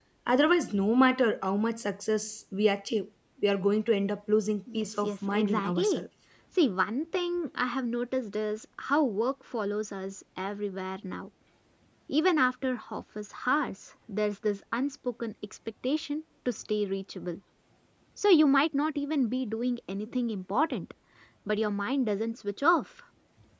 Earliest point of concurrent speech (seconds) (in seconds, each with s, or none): 4.7 s